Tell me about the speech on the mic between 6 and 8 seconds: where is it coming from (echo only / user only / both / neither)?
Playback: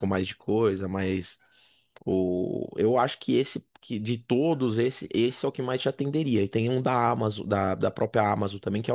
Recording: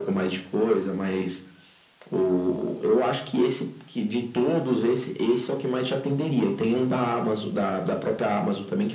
echo only